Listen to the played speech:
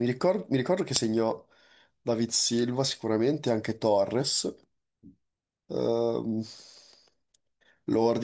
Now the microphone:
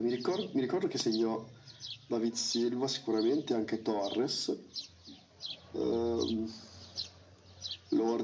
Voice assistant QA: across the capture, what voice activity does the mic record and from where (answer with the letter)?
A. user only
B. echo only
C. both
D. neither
B